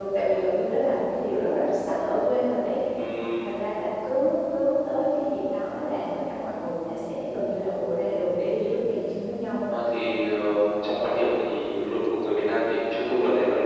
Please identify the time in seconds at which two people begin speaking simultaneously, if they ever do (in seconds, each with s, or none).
none